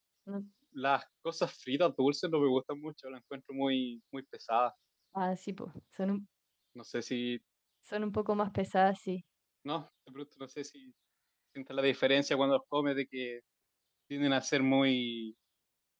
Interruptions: none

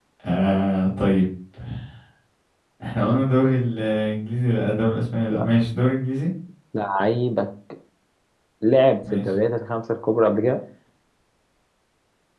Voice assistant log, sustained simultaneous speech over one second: none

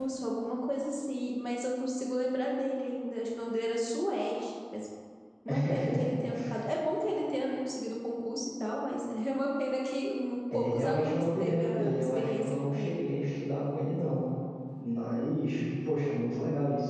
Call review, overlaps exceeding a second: present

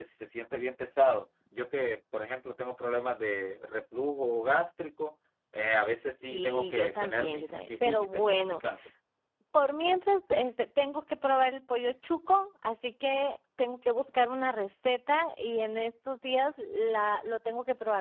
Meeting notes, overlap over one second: present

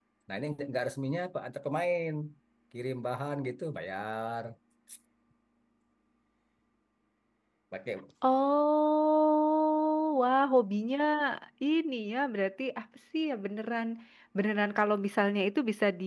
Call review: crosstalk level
none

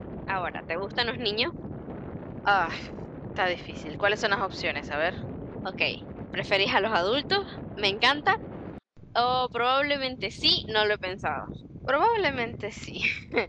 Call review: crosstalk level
none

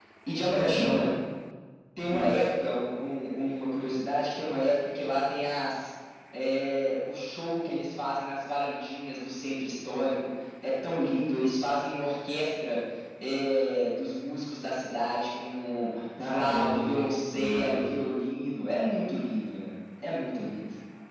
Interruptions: present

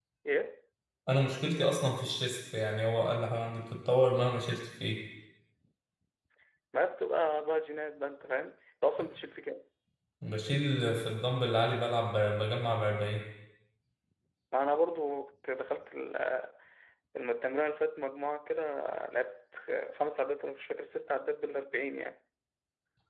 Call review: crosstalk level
none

